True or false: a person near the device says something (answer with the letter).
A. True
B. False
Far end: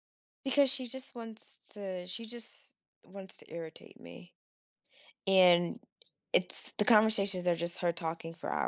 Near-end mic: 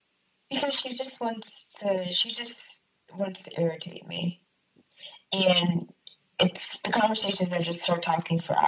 B